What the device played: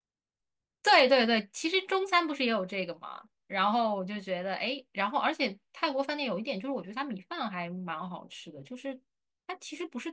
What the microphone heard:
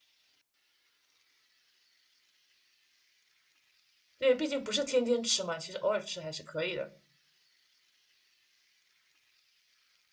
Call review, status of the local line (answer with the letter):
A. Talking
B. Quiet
A